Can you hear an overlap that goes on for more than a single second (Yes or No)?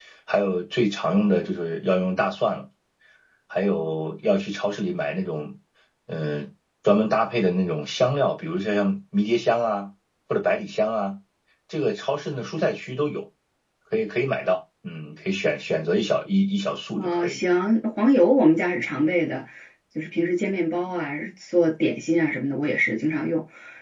No